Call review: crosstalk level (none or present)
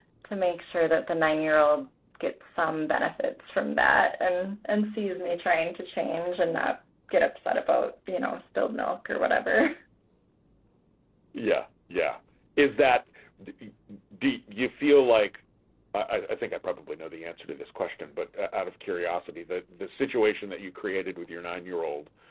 none